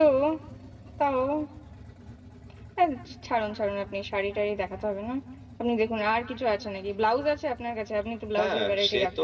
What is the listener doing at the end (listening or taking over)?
taking over